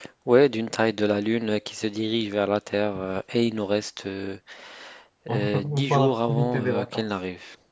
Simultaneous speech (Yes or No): Yes